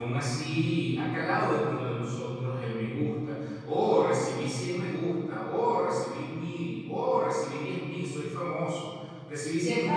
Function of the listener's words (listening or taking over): taking over